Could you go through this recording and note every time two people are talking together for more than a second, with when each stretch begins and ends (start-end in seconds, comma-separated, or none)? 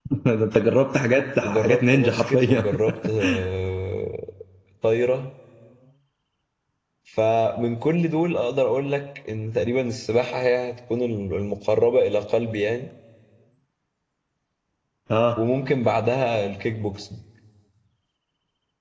1.4-2.6